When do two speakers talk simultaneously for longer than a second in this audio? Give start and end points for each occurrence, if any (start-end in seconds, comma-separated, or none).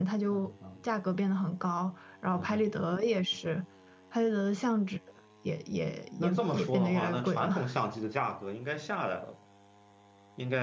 6.2-7.6